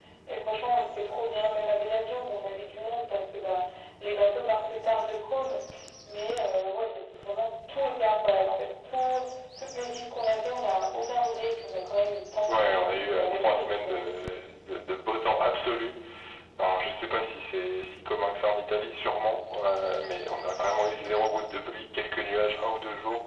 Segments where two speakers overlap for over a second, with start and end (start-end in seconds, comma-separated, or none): 12.5-14.1